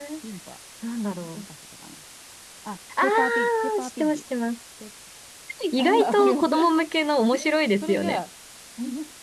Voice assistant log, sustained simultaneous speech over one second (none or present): present